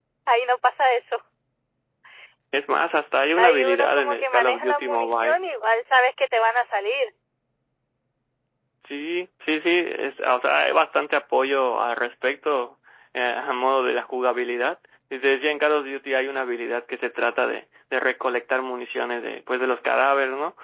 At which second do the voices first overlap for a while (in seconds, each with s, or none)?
3.4 s